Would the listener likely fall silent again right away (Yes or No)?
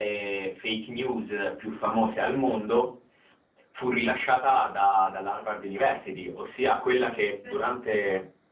Yes